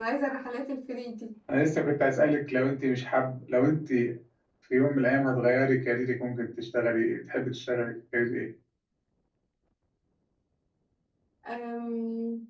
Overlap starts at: none

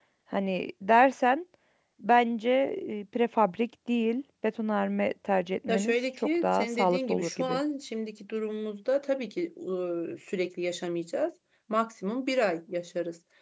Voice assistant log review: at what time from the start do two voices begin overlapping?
5.7 s

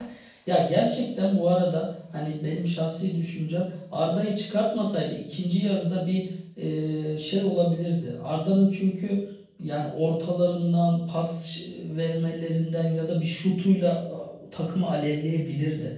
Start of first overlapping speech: none

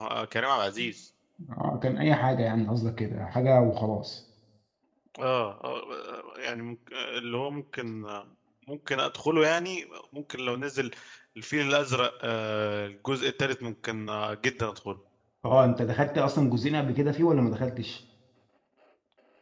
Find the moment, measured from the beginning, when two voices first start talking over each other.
none

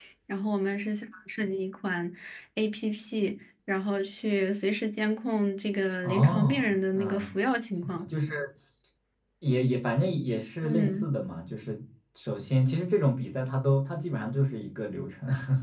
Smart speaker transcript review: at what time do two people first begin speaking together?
6.0 s

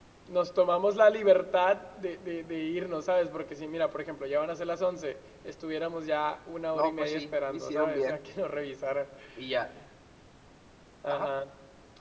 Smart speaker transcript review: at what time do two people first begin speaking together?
6.7 s

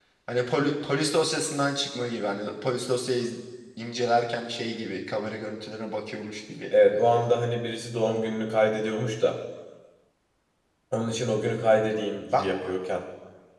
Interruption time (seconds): none

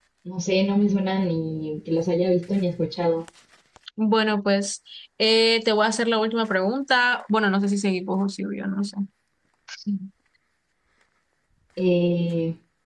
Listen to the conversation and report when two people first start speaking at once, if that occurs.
none

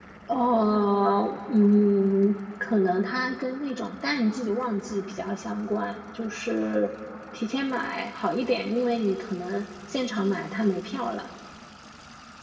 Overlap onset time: none

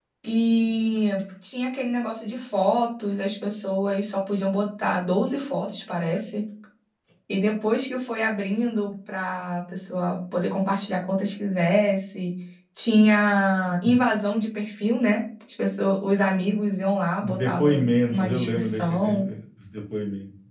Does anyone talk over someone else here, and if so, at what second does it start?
17.2 s

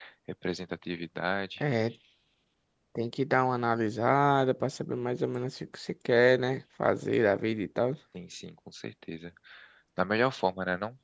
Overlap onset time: none

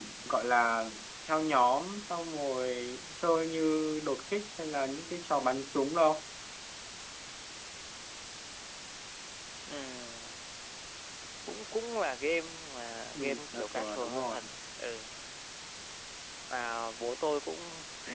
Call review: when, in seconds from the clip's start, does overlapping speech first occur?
13.2 s

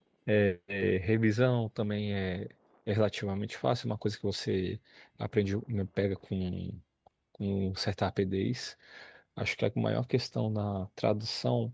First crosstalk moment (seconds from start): none

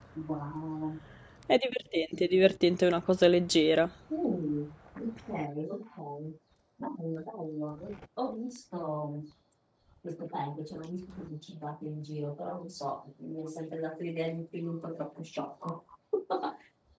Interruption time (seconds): none

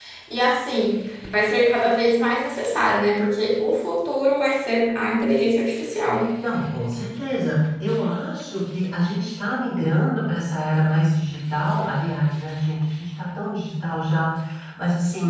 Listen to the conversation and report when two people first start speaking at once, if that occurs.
none

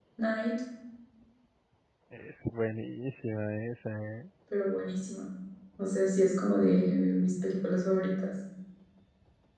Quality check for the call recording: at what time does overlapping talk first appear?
none

